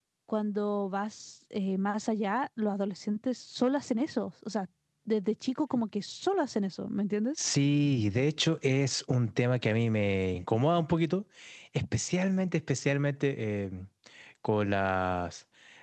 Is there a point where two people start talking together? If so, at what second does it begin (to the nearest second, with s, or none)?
none